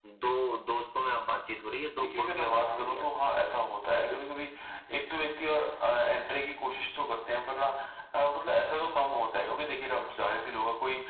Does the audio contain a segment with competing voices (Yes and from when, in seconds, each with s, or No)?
Yes, from 2.0 s